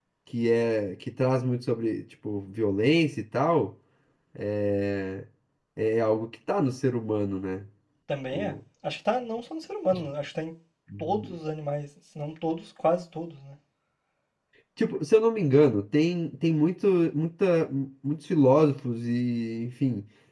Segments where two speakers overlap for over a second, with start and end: none

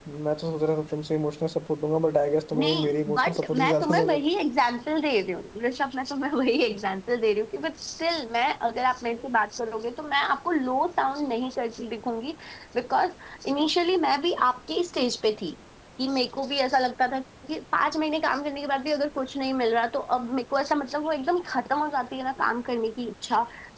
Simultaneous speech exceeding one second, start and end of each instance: 2.5-4.2

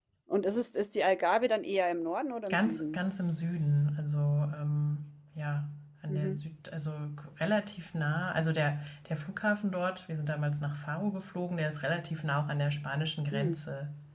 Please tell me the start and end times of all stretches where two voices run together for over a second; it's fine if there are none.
none

